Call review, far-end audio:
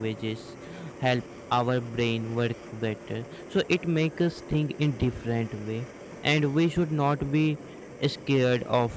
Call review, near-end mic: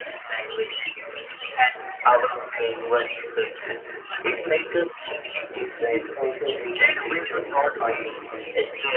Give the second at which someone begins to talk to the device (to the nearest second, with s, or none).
6 s